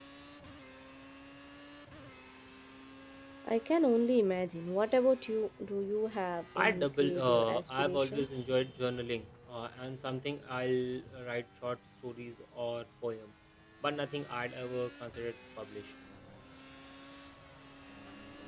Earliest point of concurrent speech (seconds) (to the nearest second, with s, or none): 7 s